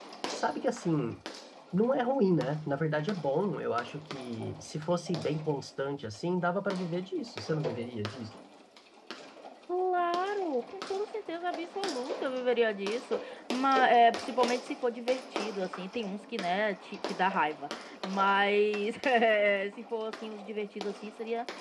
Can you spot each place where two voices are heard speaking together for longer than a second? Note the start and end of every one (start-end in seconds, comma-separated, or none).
none